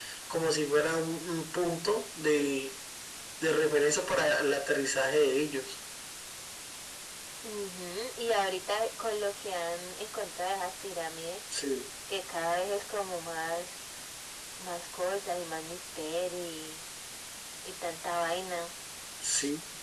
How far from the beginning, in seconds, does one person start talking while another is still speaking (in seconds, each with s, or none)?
none